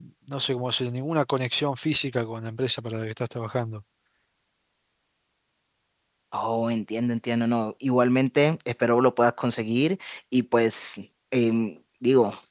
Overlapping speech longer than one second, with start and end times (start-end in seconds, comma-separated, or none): none